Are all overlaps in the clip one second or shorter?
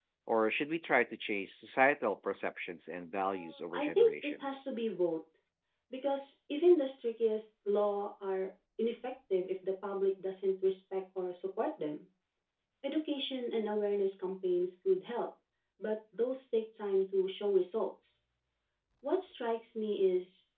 No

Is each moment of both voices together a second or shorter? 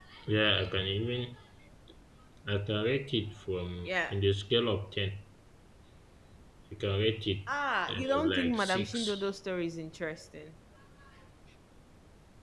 No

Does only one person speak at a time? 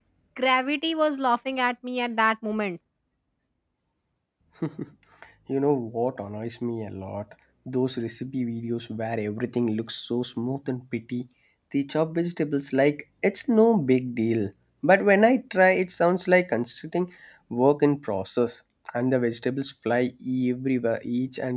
Yes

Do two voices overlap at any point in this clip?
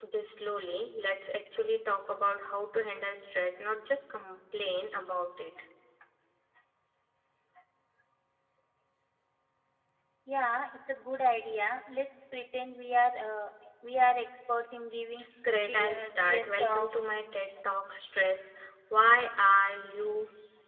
Yes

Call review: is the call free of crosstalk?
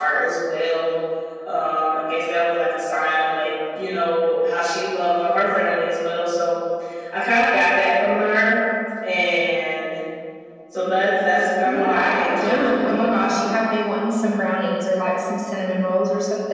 No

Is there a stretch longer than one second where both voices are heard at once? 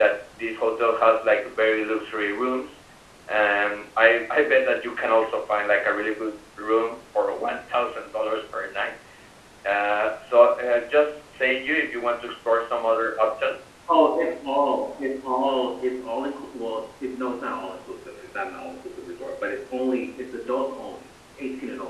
No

